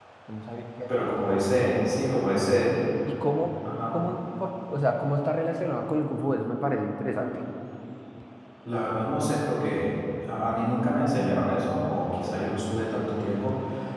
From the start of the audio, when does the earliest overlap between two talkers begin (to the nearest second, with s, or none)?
1 s